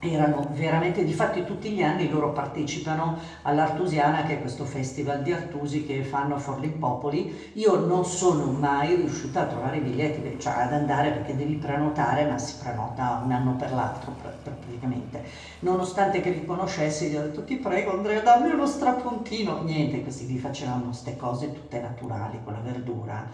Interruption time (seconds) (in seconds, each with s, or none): none